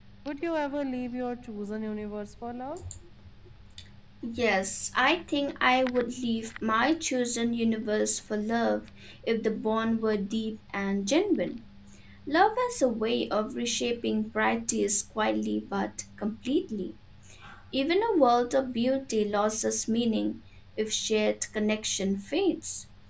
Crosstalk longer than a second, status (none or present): none